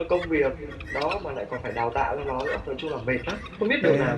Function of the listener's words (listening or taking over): taking over